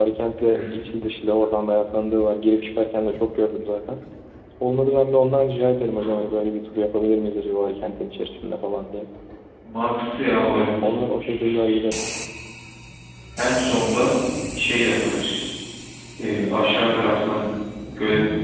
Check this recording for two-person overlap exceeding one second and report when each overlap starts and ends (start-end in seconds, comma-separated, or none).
none